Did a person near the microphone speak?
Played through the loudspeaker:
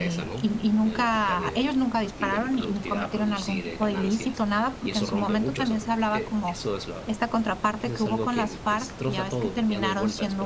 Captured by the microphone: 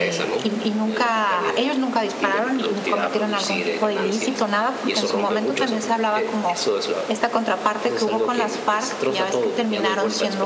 No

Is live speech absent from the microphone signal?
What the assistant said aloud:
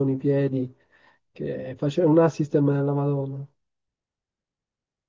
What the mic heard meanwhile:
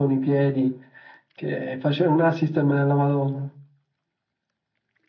Yes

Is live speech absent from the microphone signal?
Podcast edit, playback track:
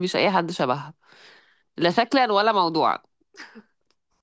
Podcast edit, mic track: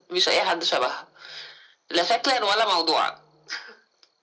Yes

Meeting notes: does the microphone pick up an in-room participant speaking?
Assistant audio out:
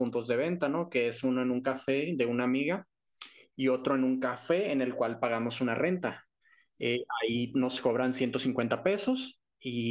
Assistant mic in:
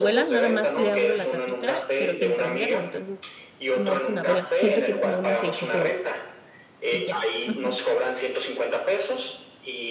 Yes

